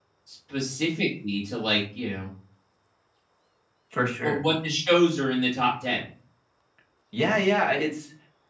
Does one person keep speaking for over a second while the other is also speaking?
No

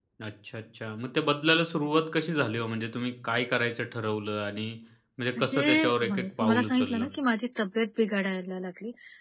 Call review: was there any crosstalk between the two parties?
Yes, from 5.4 s

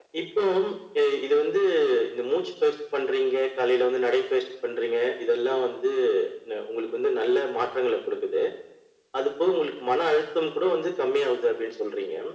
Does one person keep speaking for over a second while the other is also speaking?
No

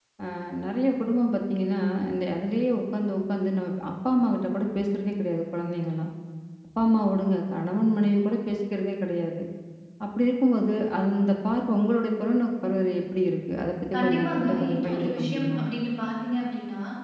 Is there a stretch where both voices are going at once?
Yes, from 13.9 s

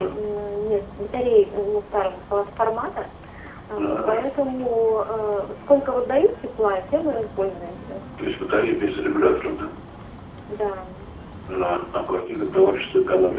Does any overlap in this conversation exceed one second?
No

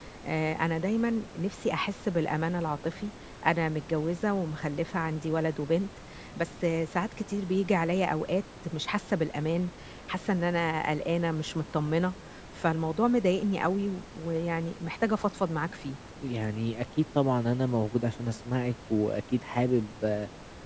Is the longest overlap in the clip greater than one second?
No

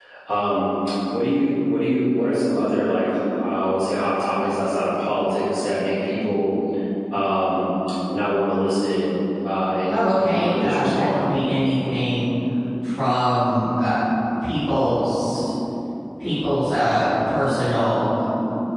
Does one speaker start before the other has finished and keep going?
Yes, from 9.9 s

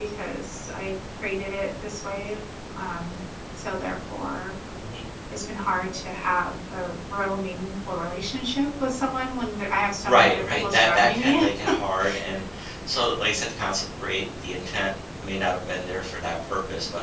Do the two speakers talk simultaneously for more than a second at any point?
Yes, from 10.0 s

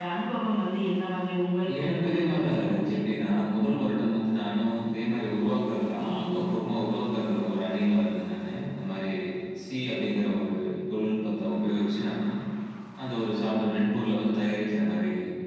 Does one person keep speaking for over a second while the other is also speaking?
Yes, from 1.8 s

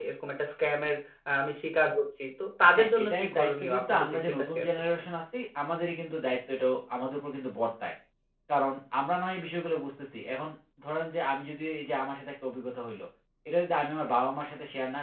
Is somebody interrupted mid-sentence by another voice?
Yes, from 2.8 s

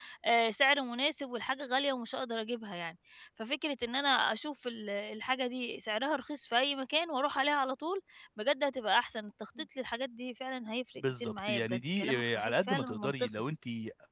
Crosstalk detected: Yes, from 11.0 s

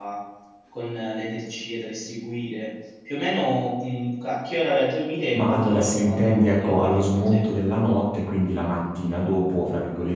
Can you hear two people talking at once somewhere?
Yes, from 5.3 s

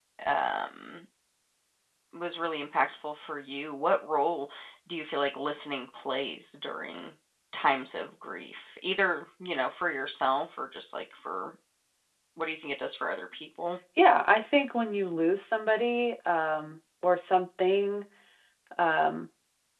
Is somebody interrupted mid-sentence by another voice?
No

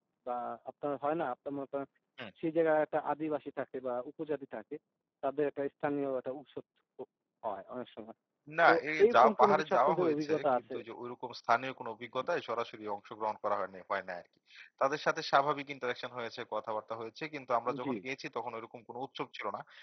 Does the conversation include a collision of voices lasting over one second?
Yes, from 8.7 s

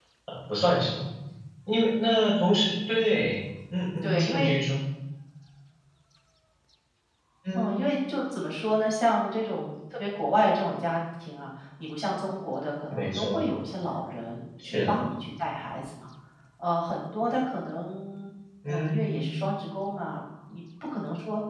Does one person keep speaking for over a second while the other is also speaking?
No

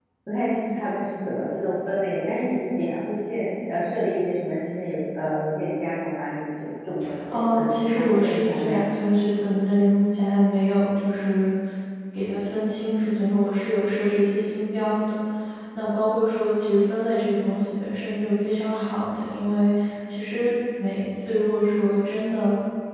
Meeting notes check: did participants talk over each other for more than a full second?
Yes, from 7.3 s

